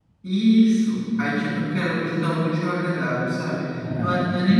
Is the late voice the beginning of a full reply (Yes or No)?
No